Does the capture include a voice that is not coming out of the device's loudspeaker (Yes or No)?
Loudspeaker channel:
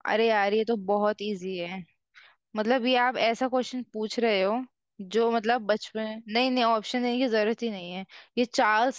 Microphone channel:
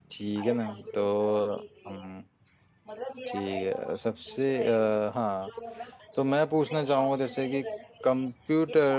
Yes